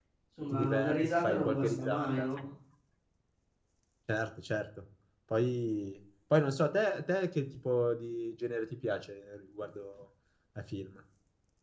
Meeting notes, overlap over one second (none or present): present